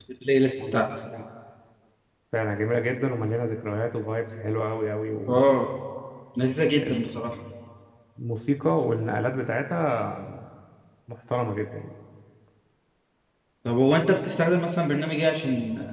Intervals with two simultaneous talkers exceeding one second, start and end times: none

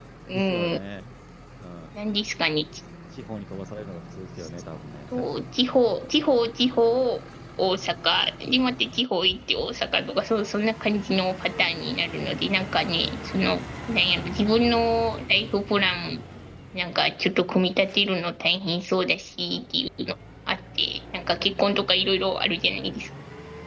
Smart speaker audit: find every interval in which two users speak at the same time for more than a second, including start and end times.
none

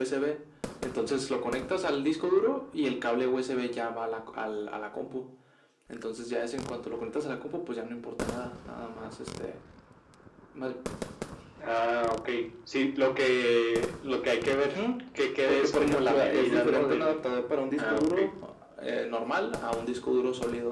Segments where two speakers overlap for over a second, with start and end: 15.5-17.3

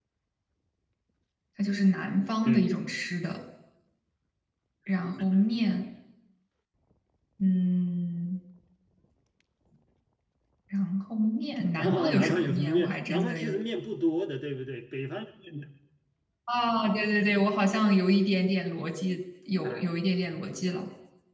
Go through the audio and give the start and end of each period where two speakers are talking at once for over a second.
11.8-13.5

